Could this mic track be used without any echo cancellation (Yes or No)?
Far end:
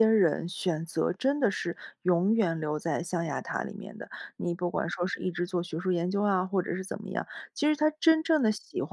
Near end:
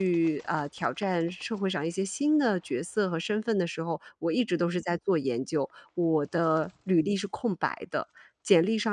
Yes